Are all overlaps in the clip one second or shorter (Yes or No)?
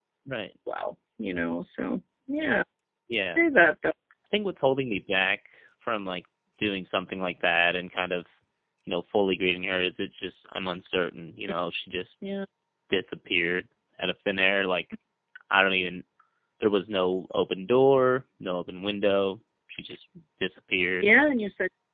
Yes